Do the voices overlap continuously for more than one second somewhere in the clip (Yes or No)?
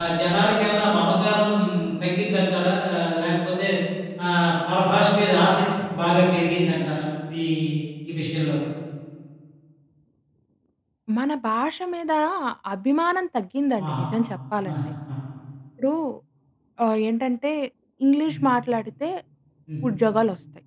No